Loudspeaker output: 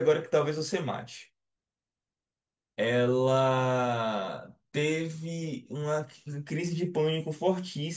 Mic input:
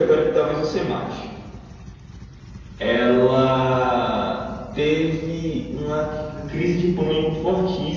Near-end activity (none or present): none